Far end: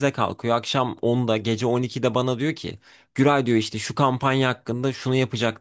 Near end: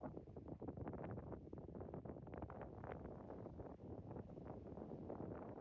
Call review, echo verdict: none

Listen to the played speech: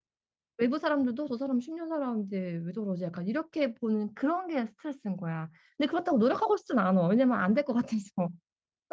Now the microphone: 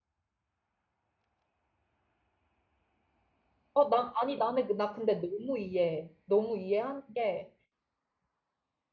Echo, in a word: none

